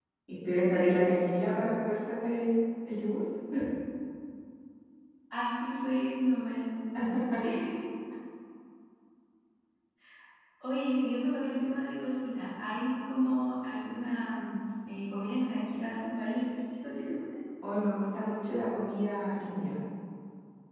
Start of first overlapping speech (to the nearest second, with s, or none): none